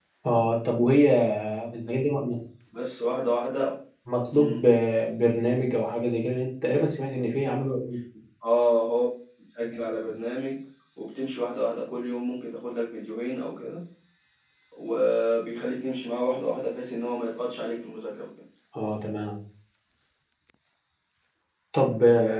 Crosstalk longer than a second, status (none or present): none